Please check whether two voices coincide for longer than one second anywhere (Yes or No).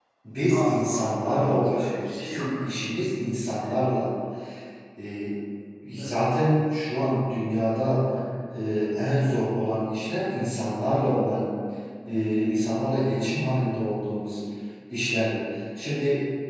Yes